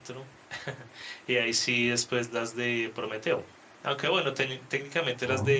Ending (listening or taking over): listening